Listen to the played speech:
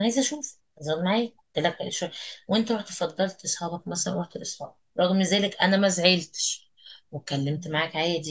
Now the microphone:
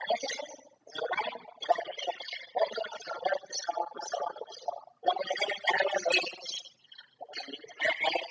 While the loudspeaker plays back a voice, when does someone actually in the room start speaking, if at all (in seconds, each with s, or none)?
none